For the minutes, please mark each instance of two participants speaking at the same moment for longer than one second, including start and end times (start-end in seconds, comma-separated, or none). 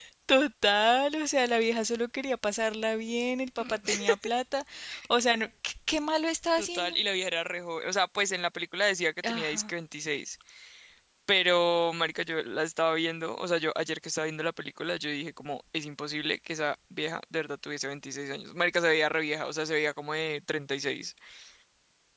none